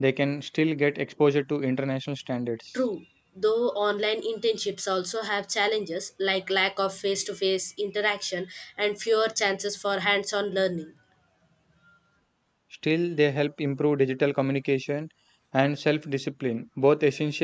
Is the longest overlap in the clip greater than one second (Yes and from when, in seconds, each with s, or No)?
No